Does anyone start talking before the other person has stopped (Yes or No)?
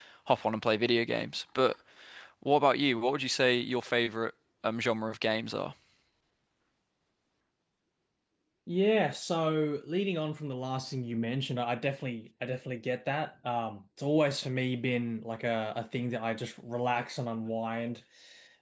No